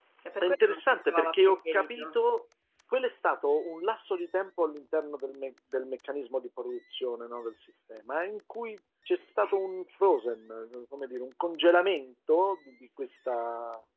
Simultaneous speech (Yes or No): Yes